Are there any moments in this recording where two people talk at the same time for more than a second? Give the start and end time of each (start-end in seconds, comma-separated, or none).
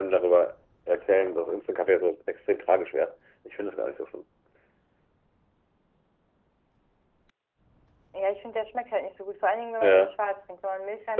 none